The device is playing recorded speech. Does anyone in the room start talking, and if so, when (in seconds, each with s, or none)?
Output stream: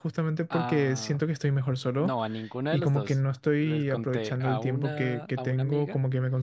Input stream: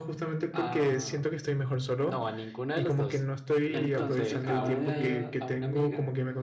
3.7 s